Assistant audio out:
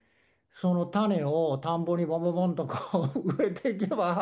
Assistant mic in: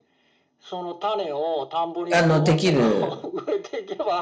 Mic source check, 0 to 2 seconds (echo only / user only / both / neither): echo only